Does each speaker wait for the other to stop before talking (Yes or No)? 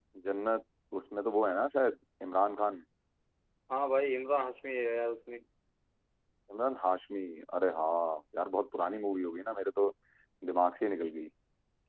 Yes